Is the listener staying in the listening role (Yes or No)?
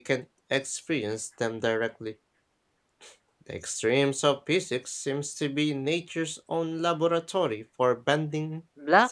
No